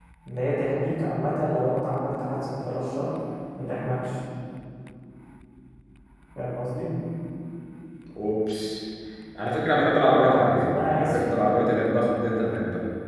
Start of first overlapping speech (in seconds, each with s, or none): 10.1 s